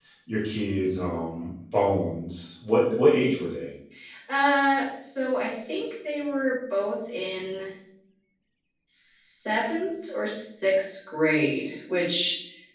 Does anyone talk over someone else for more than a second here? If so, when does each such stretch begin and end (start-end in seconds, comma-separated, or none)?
none